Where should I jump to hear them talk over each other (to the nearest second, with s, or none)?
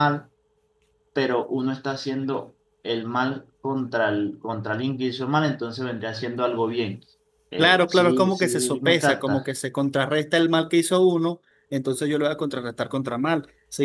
8 s